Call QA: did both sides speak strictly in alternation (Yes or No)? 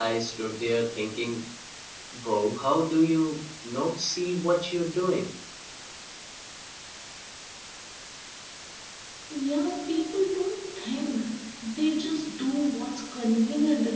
Yes